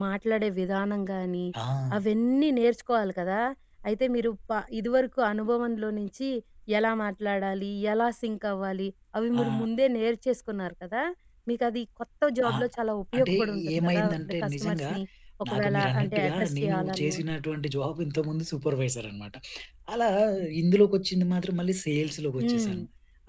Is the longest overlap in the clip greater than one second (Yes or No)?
Yes